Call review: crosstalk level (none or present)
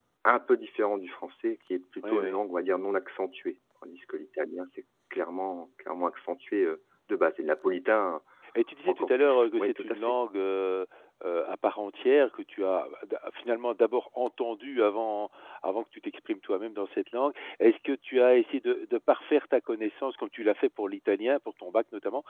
present